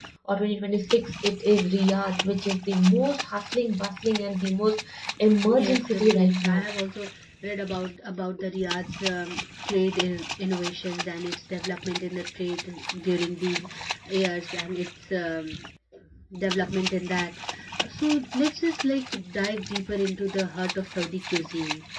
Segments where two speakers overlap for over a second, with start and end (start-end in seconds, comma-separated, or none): 5.4-6.6